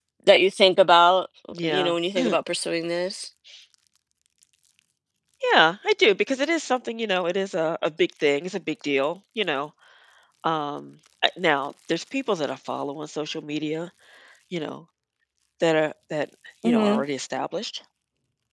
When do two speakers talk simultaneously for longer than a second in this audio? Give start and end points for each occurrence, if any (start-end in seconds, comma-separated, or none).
none